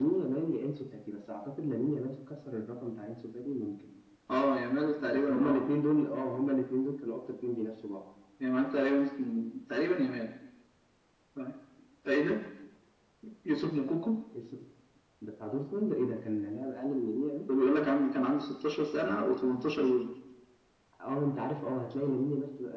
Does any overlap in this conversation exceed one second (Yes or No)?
No